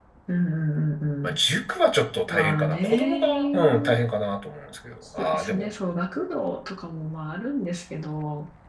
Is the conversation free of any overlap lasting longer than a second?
No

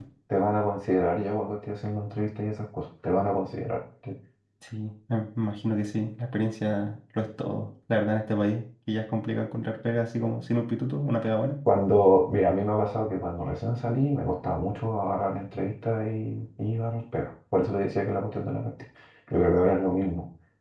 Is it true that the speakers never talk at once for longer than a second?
Yes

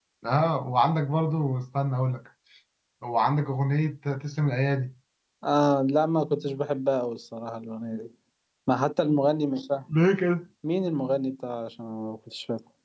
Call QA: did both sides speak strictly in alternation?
Yes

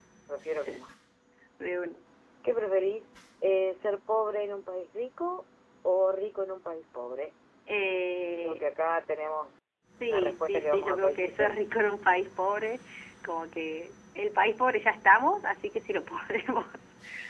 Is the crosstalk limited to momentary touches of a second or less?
No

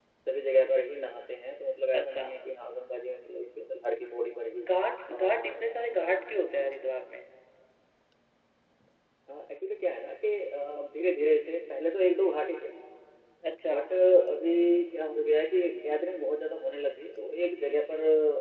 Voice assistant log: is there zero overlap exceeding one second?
Yes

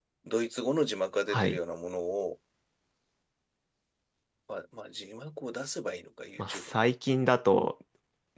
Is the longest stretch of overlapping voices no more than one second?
Yes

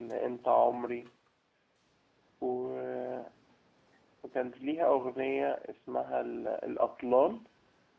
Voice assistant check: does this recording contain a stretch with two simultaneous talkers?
No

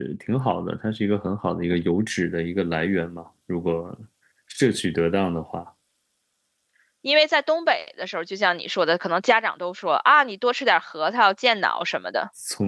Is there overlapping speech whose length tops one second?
No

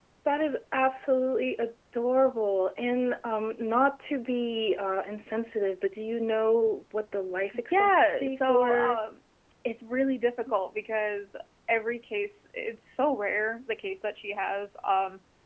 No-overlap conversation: No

